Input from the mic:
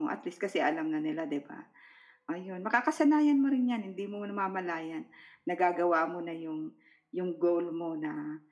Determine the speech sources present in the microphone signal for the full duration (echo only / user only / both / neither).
echo only